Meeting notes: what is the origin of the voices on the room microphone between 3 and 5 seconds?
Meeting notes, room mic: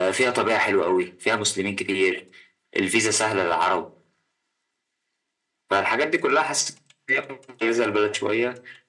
echo only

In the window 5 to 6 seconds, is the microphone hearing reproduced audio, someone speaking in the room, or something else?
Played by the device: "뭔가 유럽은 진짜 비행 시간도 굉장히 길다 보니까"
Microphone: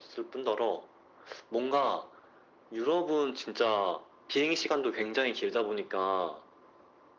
echo only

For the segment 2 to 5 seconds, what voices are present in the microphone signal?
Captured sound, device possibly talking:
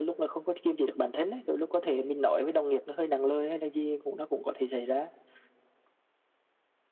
echo only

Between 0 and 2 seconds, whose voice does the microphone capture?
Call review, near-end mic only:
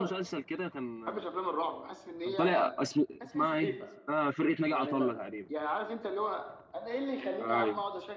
both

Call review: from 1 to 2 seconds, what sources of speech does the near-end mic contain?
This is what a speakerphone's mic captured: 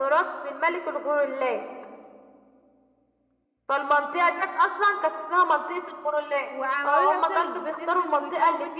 echo only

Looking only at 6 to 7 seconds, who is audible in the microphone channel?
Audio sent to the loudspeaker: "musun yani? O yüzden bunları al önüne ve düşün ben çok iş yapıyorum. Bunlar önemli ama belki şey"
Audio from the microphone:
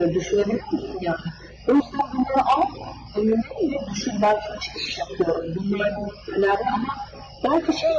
echo only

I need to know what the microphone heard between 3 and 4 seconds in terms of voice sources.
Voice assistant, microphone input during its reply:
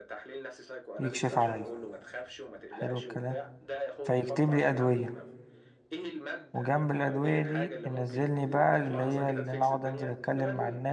both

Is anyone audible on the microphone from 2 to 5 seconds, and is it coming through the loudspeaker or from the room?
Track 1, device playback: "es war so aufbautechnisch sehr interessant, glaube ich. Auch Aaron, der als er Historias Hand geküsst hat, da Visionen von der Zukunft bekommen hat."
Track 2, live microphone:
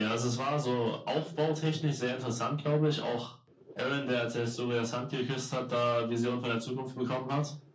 echo only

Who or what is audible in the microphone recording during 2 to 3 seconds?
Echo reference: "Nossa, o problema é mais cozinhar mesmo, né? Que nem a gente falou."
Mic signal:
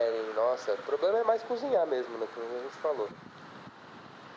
echo only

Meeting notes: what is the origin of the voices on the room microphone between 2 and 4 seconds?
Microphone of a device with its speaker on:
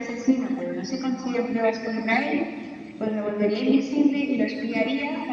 echo only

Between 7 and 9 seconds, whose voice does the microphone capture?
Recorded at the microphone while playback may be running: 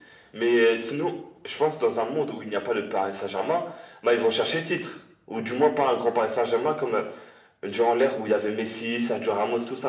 echo only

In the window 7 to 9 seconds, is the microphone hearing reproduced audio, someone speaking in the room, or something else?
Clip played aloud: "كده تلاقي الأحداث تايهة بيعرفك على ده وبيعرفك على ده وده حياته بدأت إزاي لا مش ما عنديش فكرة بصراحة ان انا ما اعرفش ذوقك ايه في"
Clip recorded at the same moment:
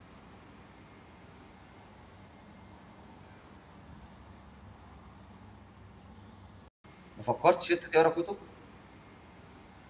user only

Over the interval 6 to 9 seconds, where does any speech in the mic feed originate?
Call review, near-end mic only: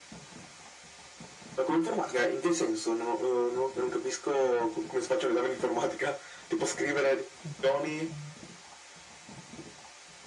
both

